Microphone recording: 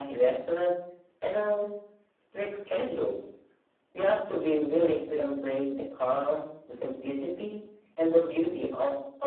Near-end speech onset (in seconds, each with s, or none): none